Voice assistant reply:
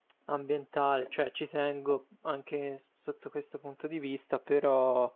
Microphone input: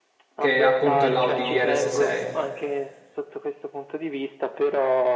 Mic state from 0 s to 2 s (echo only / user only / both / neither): both